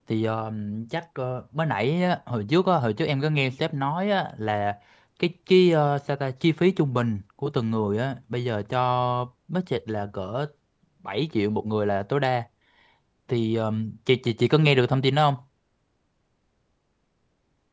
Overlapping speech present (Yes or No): No